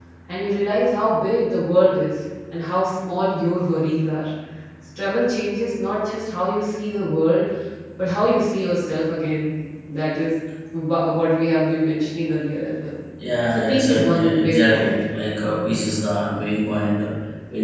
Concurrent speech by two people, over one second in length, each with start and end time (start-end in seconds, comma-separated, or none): 13.6-14.9